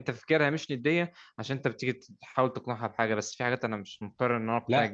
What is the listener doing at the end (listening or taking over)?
taking over